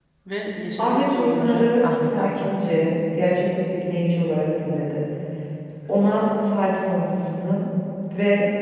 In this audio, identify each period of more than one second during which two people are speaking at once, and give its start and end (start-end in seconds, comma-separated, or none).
0.8-2.8